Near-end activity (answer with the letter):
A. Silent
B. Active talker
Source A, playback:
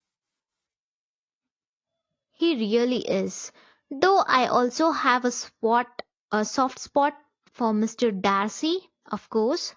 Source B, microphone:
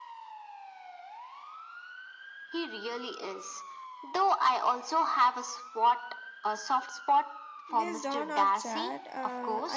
B